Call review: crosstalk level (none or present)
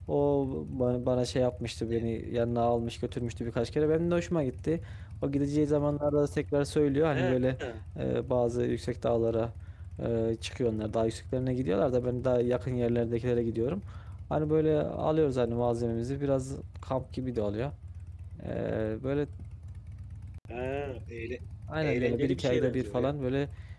present